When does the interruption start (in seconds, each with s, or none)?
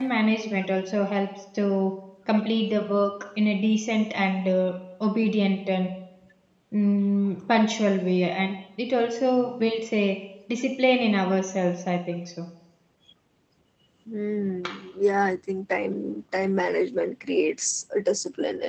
none